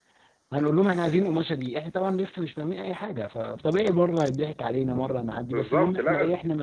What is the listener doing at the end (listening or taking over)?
listening